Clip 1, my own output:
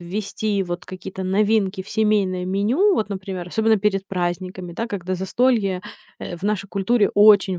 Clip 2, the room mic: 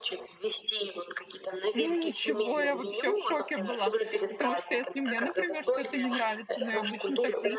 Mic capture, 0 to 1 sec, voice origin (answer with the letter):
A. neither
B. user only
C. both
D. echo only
D